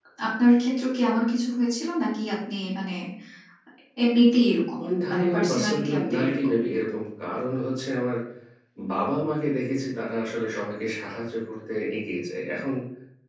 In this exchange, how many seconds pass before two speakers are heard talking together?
5 s

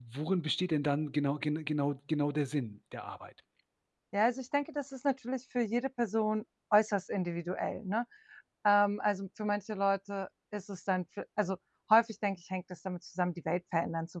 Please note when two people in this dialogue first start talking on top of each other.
none

